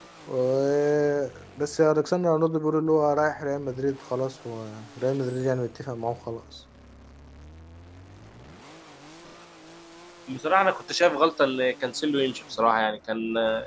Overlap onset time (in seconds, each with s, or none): none